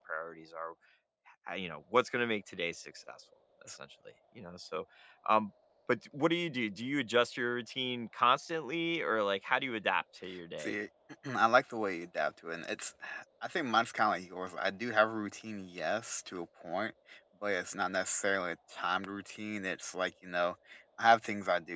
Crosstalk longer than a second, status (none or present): none